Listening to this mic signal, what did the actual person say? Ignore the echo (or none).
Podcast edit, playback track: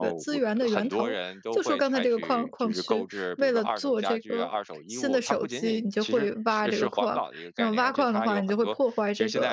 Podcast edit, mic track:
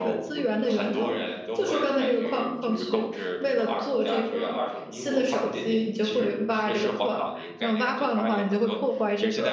none